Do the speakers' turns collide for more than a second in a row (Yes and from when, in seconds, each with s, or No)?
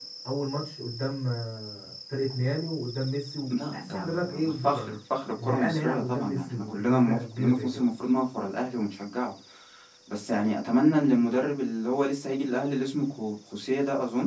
Yes, from 3.5 s